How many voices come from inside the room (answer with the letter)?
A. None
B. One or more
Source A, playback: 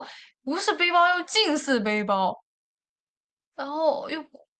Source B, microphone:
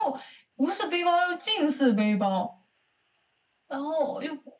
A